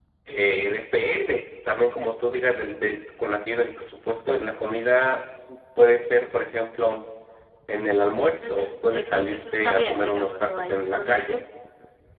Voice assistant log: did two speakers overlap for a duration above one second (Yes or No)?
Yes